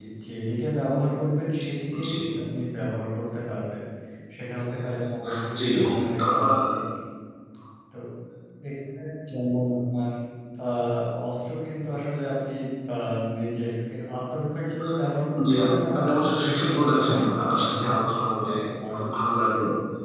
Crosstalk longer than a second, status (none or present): present